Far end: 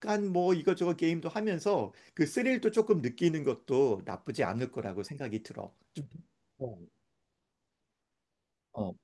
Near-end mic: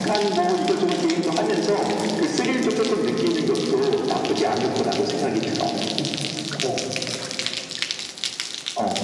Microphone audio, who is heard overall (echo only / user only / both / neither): echo only